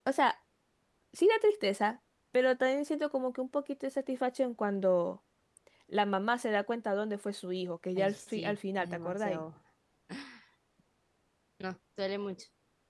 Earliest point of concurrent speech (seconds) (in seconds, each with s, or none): 8.0 s